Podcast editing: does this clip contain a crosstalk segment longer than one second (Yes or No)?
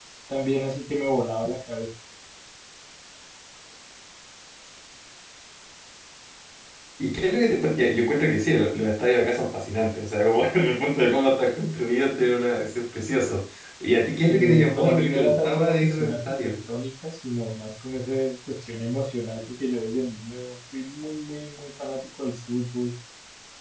Yes